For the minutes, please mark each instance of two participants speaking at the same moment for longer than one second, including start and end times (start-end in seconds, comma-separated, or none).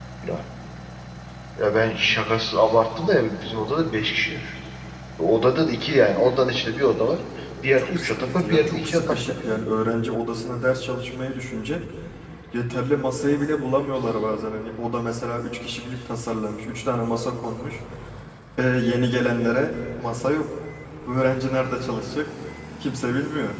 7.8-9.6